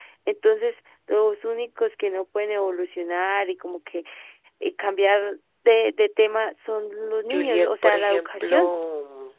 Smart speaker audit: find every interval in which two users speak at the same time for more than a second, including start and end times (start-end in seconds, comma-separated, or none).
7.3-8.7